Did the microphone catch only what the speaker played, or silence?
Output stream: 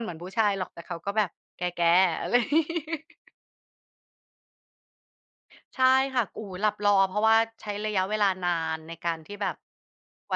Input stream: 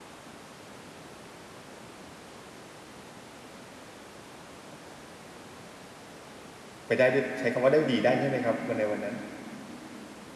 No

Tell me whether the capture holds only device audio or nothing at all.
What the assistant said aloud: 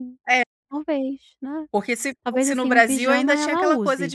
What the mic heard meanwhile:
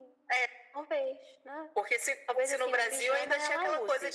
Yes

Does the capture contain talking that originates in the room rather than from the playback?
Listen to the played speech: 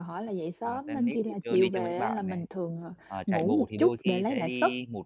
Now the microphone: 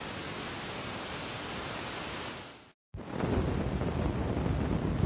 No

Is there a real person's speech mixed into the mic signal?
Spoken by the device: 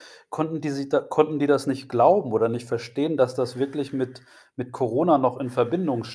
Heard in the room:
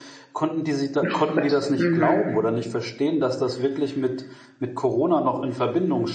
Yes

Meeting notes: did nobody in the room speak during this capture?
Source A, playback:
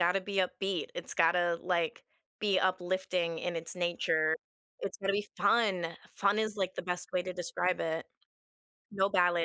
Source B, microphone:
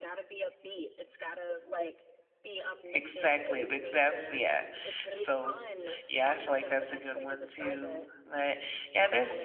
No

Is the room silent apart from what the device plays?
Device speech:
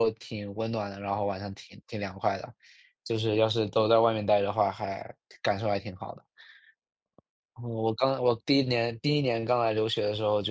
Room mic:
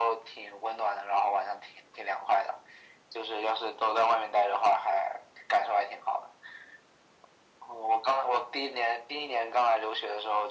Yes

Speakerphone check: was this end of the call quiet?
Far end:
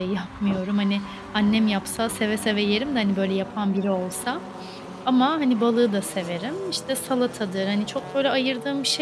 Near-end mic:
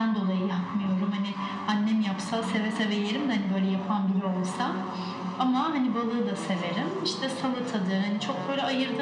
Yes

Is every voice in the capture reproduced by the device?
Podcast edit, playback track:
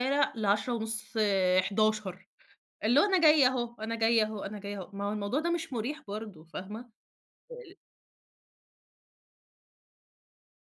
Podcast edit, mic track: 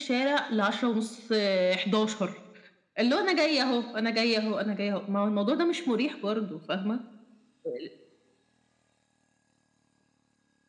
Yes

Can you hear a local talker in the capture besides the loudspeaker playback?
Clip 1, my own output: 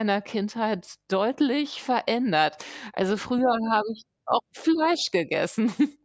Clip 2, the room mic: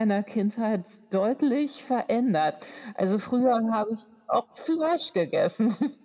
No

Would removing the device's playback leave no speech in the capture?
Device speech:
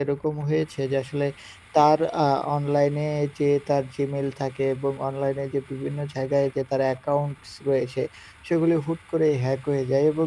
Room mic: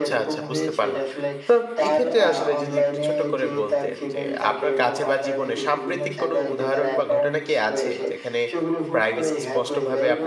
No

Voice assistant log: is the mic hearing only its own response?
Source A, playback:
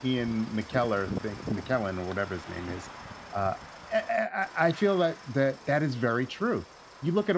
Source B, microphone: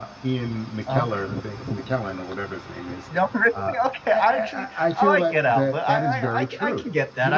No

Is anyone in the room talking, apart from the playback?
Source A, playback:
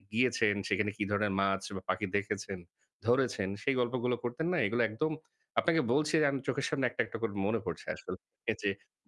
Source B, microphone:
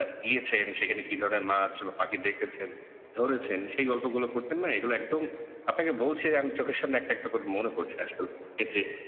No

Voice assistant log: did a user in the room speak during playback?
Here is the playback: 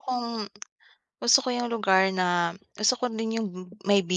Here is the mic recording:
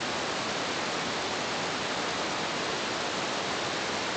No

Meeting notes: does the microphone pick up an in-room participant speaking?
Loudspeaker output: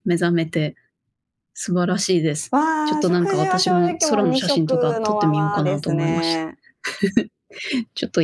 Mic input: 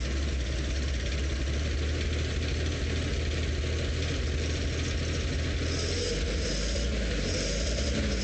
No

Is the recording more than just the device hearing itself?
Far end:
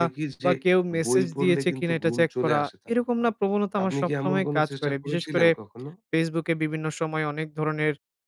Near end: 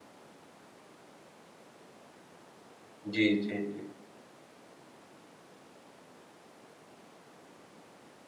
Yes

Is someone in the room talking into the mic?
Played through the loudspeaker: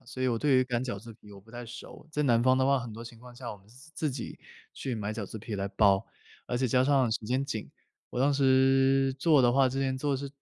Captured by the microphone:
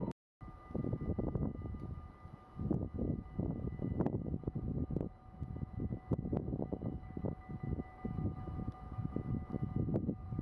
No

